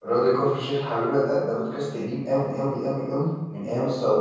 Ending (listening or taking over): listening